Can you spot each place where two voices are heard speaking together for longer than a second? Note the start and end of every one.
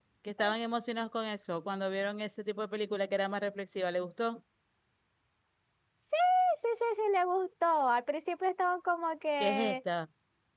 none

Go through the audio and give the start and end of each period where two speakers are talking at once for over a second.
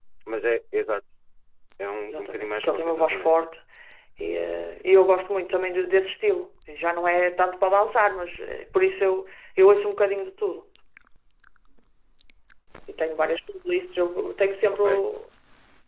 2.1-3.3

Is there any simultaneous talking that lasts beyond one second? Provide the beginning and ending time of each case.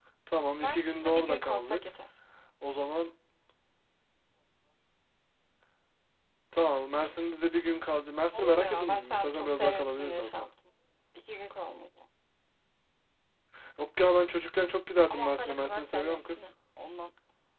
0.5-1.8, 8.3-10.5, 15.1-16.4

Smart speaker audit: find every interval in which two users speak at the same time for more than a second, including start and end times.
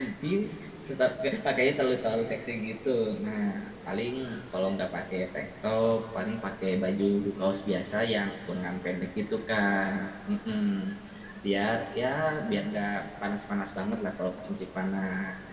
none

